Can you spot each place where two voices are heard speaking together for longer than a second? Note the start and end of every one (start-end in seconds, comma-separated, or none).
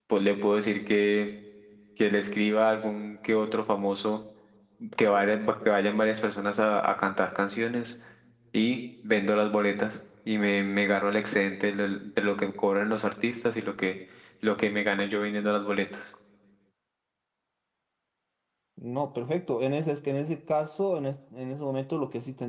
none